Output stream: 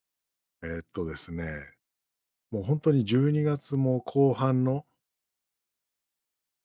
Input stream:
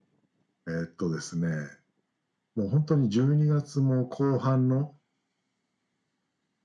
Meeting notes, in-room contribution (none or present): none